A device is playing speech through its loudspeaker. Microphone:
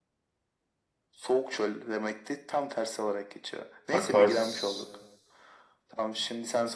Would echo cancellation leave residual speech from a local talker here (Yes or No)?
Yes